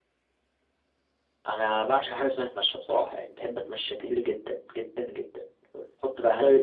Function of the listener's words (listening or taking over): listening